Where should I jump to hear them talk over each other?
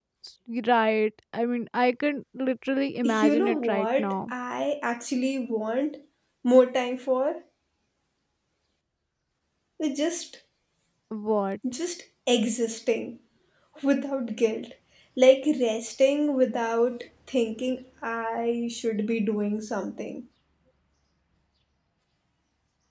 3 s

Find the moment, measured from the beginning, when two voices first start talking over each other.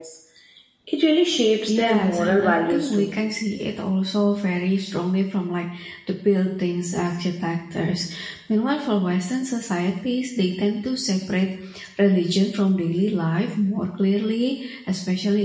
2 s

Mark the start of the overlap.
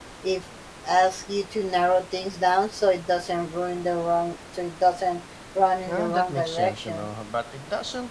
6 s

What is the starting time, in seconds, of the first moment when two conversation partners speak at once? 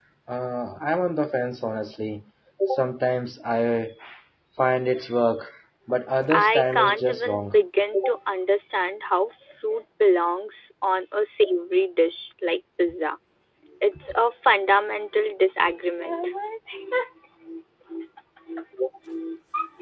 6 s

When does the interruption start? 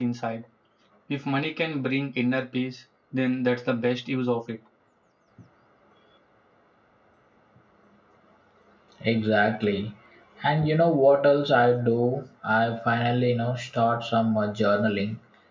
none

